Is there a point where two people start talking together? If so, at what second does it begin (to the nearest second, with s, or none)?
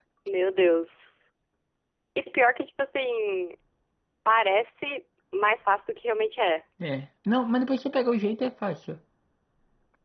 none